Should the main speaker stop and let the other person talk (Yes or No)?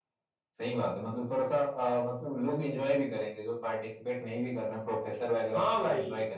Yes